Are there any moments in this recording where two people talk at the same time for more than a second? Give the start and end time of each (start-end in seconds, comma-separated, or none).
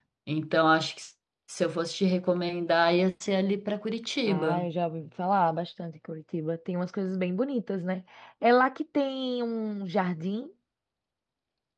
none